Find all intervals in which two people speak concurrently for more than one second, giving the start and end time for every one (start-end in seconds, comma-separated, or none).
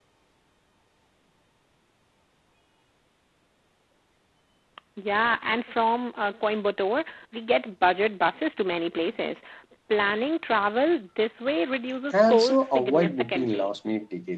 12.1-13.7